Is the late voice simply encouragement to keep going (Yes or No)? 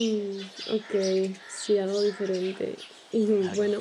Yes